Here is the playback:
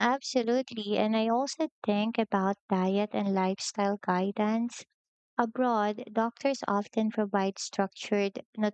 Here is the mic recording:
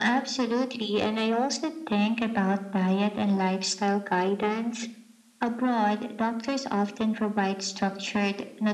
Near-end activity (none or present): none